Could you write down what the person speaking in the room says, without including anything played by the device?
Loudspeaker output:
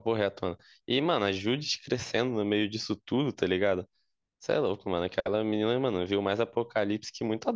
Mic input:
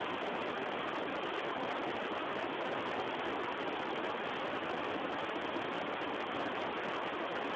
none

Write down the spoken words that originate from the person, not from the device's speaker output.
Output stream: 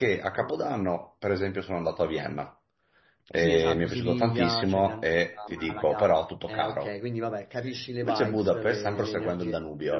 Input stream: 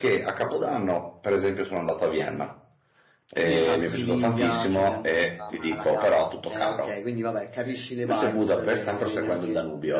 none

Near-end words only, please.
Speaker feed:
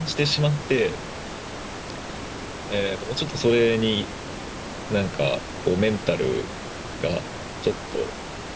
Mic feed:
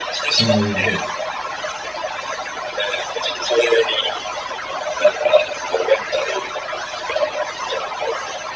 うん。うん。

